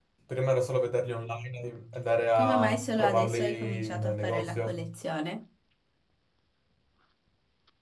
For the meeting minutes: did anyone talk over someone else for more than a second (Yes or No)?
Yes